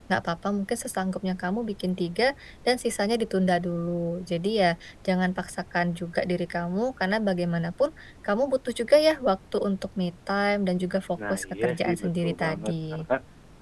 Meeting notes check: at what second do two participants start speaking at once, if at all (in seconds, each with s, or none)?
11.2 s